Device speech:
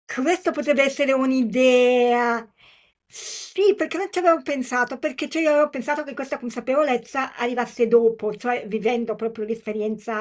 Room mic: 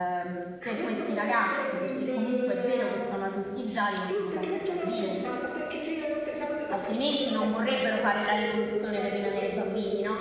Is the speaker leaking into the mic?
Yes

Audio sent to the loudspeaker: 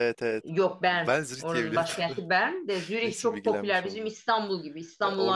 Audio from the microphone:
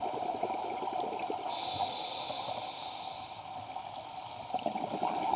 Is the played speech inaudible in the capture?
Yes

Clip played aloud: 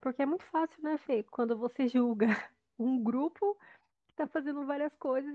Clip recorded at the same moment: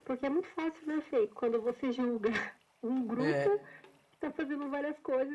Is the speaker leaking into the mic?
Yes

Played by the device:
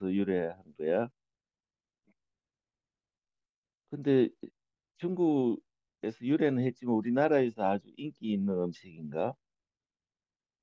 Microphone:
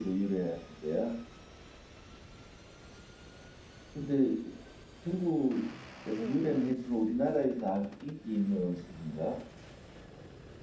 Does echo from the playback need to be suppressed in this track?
Yes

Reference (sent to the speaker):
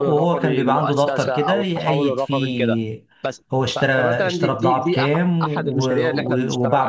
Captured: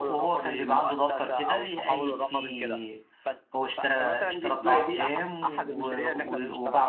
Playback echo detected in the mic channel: Yes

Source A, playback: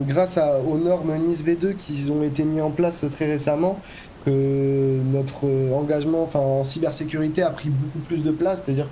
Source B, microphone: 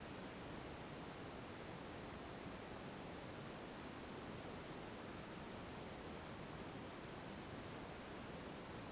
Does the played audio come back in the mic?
No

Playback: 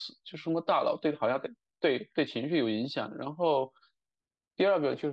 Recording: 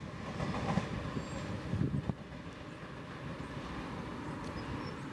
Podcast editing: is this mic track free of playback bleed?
Yes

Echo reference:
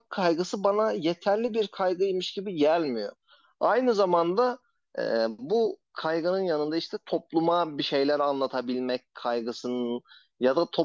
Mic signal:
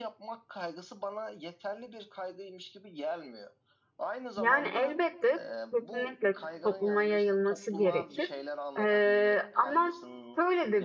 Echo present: Yes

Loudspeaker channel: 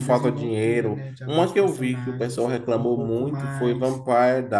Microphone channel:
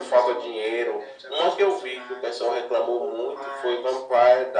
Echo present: Yes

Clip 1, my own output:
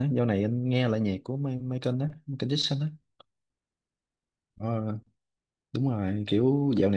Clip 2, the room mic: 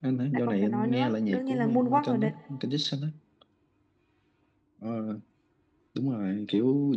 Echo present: Yes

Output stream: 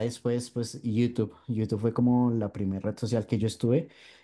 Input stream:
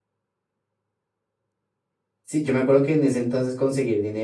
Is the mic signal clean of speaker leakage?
Yes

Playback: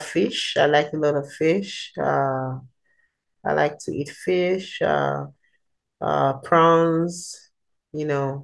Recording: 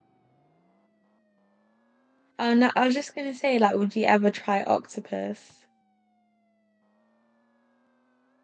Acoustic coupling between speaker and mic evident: No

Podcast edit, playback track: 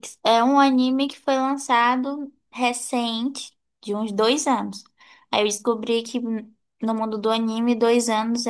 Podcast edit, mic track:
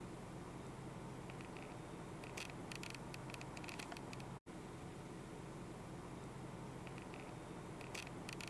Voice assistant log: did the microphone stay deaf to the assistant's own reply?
Yes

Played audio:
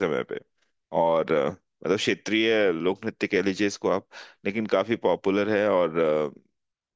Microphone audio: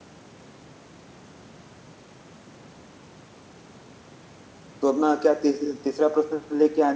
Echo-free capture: Yes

